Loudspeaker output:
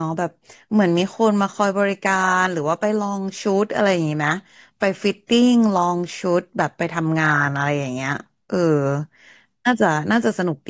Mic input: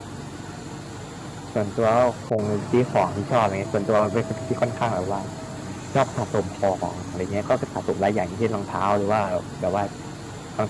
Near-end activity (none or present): present